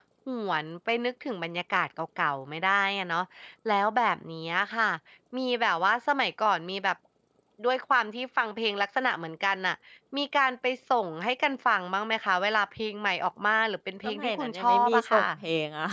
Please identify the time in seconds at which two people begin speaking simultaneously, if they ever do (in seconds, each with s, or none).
14.0 s